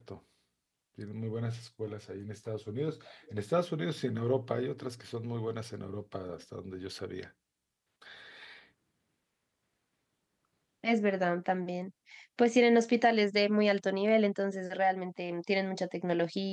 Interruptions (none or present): none